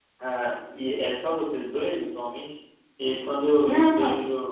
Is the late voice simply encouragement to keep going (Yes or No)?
Yes